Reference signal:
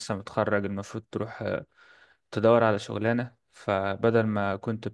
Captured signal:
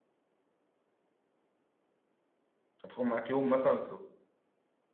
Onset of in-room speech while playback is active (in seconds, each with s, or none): 2.8 s